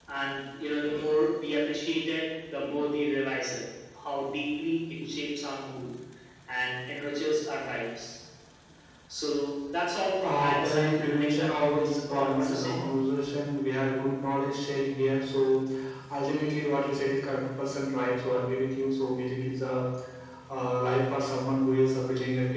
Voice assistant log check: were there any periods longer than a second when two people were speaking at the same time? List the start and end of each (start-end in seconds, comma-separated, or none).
10.2-12.7